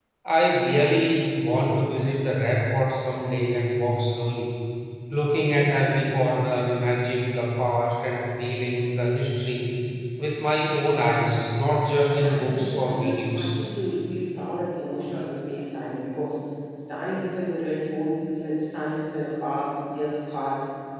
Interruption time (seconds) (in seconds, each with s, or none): 12.2 s